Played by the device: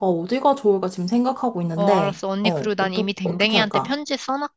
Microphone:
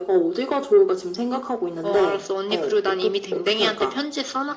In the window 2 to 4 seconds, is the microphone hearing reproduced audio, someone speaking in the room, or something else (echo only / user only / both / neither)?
echo only